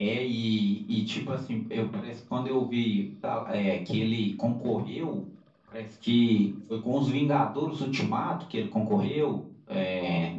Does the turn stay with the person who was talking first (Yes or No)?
Yes